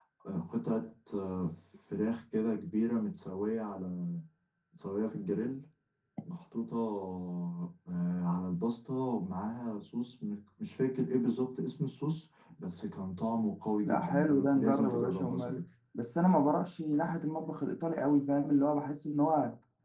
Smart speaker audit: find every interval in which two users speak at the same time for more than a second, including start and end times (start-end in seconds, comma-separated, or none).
13.8-15.6